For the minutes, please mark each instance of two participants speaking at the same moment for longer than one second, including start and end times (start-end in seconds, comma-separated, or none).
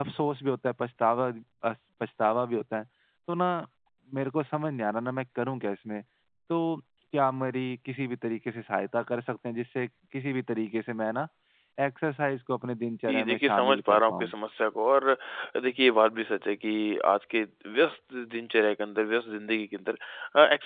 13.1-14.3